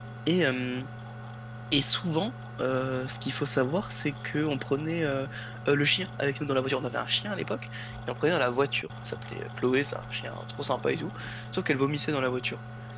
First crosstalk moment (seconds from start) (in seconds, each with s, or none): none